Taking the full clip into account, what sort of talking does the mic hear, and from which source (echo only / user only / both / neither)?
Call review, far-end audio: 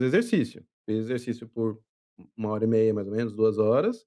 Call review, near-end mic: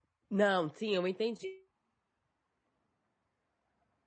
user only